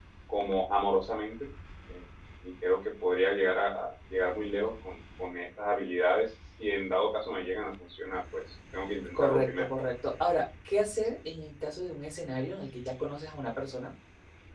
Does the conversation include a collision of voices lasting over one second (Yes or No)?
No